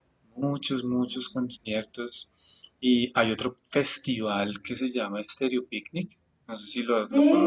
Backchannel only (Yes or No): No